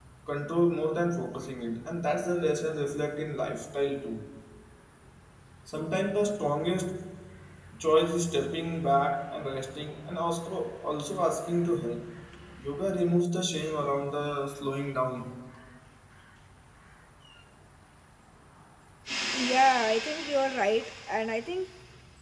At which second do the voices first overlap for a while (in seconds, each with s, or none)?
none